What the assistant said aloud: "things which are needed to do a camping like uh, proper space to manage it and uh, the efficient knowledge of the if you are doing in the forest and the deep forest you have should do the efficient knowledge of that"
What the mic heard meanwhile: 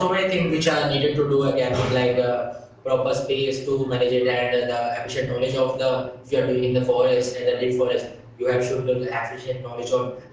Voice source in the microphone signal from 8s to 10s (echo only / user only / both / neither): echo only